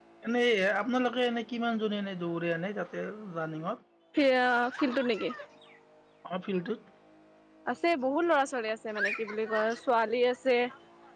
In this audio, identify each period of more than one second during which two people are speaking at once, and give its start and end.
none

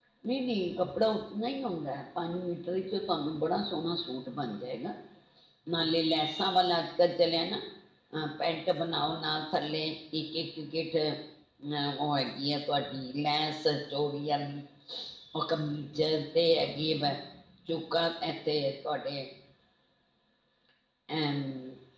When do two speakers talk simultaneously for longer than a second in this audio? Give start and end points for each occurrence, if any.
none

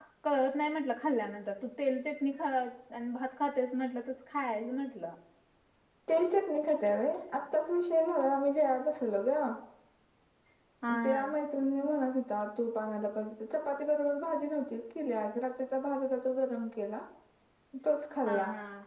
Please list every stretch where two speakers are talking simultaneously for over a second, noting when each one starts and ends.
none

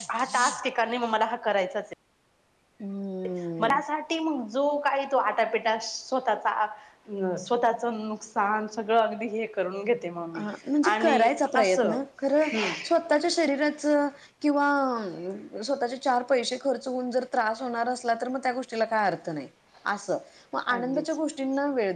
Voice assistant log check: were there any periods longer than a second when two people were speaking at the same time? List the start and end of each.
none

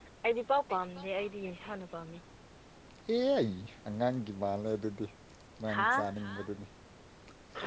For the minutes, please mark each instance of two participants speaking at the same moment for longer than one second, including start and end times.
none

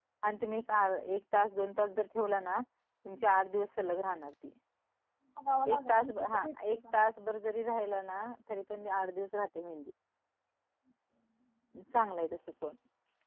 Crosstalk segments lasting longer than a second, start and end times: 5.7-7.0

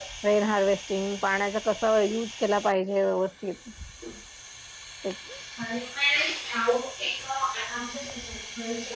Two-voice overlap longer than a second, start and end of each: none

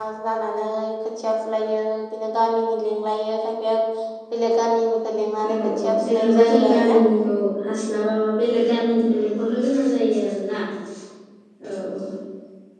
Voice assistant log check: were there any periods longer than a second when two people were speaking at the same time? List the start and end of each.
5.4-7.0

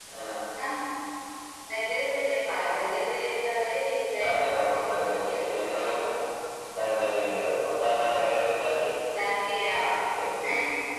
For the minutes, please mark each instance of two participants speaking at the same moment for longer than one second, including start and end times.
4.2-5.5

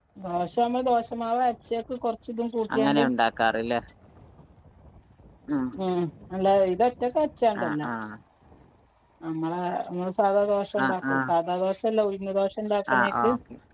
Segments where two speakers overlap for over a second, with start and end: none

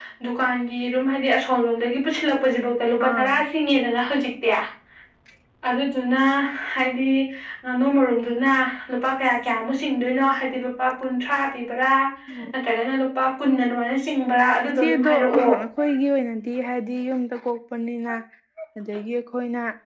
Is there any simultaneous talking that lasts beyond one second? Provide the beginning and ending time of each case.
14.2-15.6

